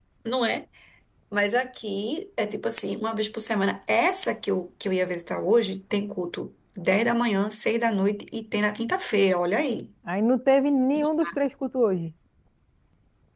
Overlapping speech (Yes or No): No